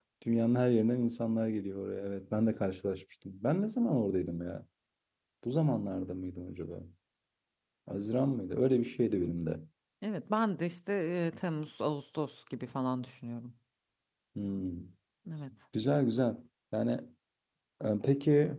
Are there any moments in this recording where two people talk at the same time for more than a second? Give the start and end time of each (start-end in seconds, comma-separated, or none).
none